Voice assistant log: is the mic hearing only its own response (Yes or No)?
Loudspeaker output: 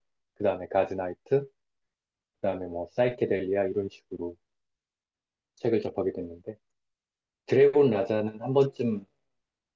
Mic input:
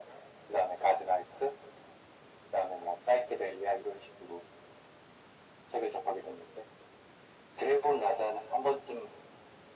Yes